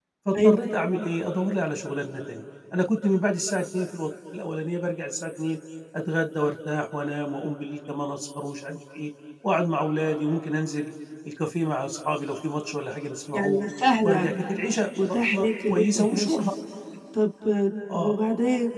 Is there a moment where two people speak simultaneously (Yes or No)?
Yes